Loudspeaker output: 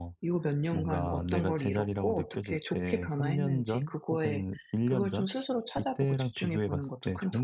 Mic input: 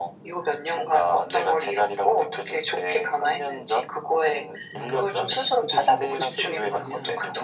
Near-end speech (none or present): present